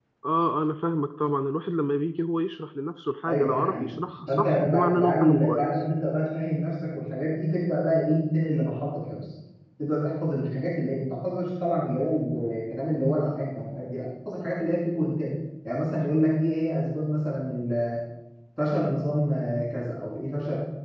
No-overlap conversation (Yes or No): No